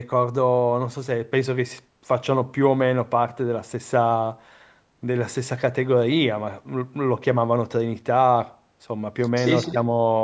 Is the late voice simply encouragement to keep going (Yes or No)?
No